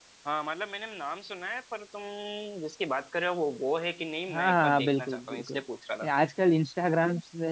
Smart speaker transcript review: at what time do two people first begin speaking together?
4.3 s

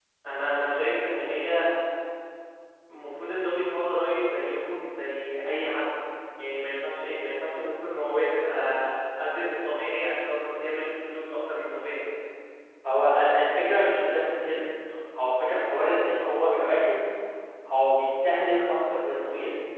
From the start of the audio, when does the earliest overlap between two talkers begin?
none

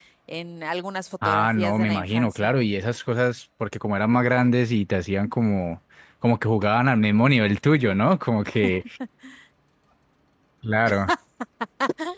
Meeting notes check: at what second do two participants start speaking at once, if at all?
1.2 s

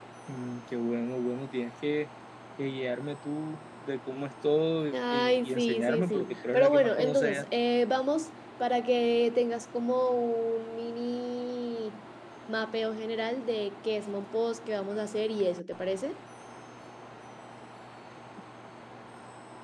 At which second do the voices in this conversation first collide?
4.9 s

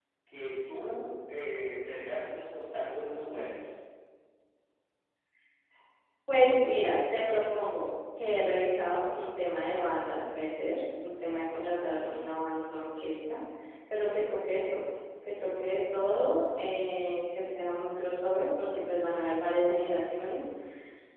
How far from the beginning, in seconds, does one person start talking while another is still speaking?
none

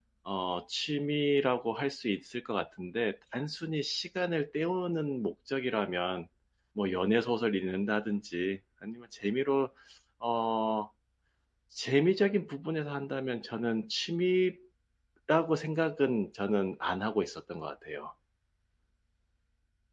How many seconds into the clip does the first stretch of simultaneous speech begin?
none

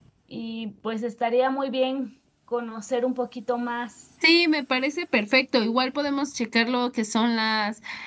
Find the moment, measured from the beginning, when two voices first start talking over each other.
none

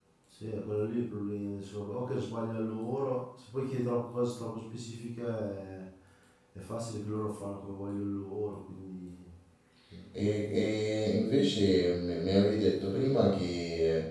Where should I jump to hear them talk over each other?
none

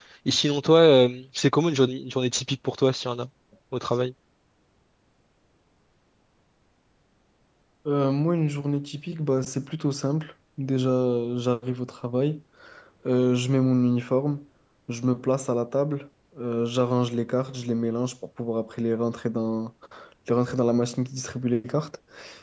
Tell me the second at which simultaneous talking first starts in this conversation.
none

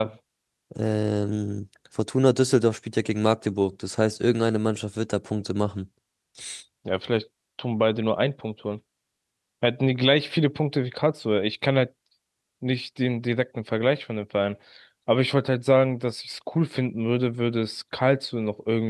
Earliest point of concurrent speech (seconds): none

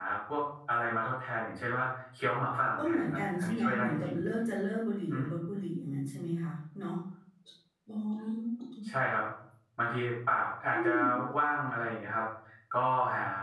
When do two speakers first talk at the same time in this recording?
2.8 s

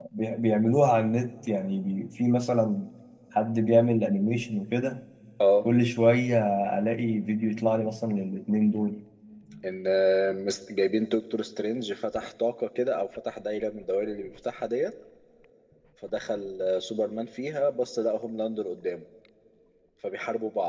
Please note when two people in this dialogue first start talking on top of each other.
none

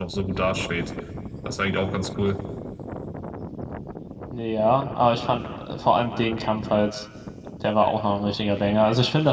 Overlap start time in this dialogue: none

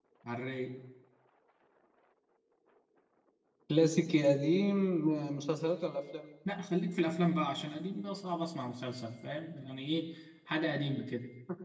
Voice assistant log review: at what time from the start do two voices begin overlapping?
none

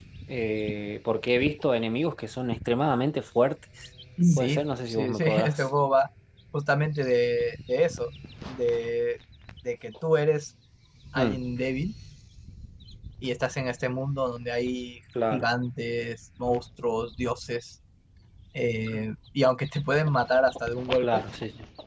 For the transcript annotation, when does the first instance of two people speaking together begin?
4.4 s

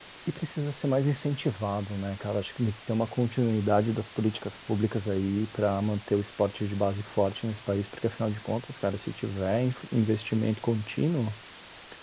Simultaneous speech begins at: none

